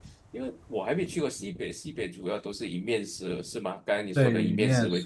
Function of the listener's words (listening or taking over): taking over